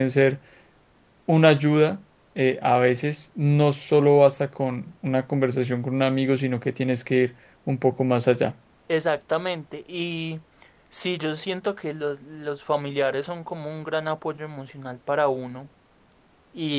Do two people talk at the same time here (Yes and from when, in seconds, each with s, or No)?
No